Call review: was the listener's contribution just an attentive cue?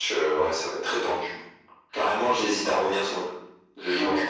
No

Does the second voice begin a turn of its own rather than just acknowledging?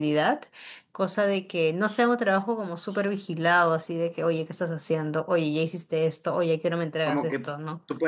Yes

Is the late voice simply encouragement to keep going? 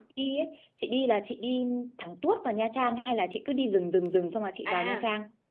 No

